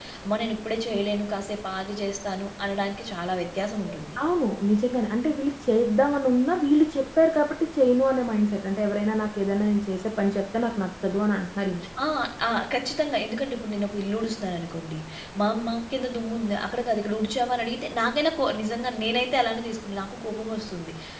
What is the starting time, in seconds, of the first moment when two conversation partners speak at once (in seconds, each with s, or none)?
none